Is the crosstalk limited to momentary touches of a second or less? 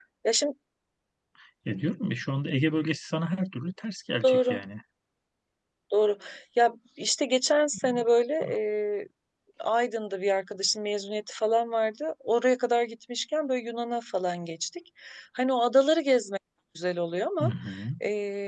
Yes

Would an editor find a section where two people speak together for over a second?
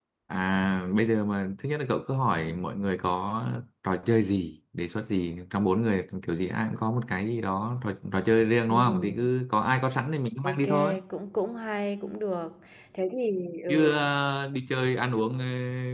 No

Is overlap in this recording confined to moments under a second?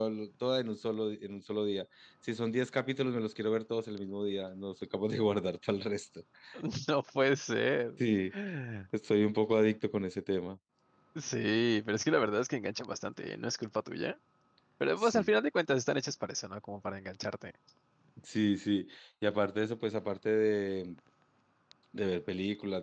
Yes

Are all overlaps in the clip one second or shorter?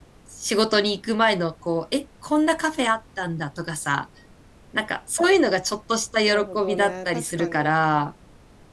No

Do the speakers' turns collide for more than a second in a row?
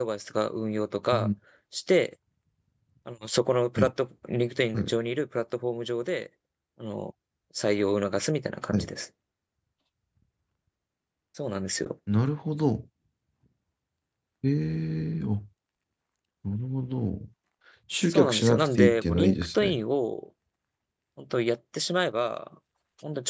Yes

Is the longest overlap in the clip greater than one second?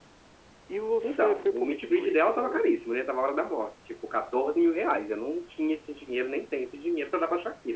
Yes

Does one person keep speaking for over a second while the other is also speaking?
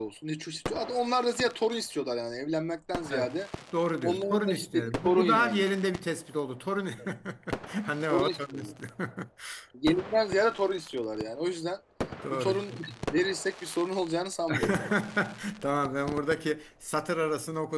Yes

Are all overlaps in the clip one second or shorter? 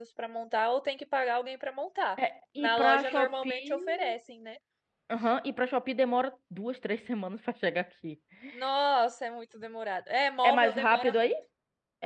No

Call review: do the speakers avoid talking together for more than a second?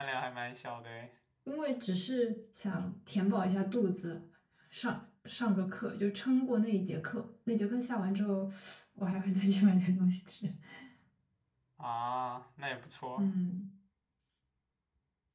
Yes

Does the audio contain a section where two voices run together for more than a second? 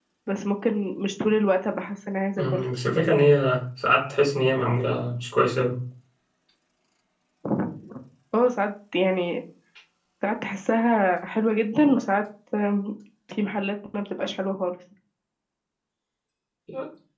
No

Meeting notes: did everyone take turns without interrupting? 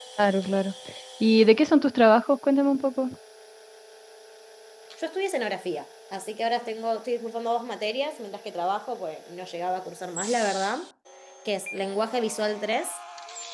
Yes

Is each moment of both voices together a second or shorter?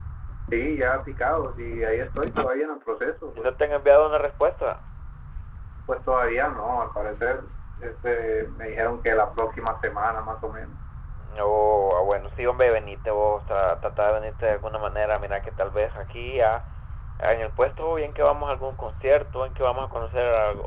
Yes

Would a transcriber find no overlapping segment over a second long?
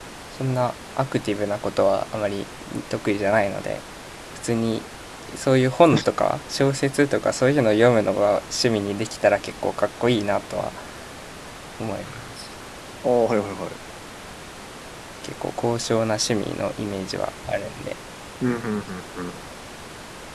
Yes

